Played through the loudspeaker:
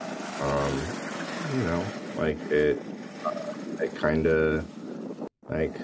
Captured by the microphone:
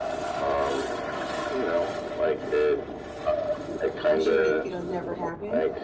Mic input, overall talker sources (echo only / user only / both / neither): both